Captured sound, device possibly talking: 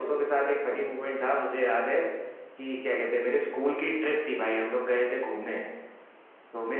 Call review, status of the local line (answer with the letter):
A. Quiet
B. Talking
A